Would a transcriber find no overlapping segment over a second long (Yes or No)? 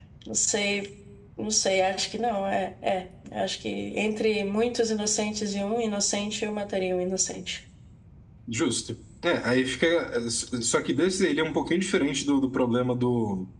Yes